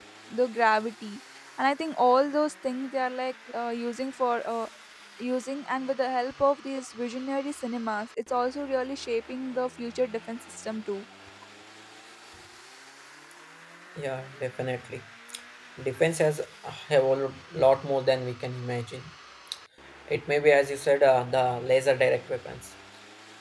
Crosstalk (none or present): none